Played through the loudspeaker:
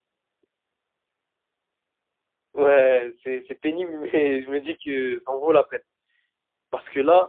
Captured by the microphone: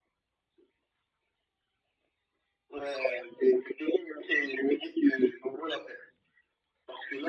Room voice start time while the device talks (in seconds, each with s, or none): none